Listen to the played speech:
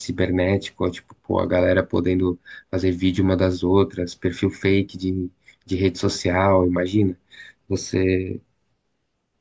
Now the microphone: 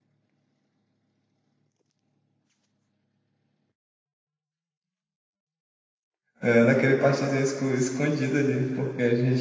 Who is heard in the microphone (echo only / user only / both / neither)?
user only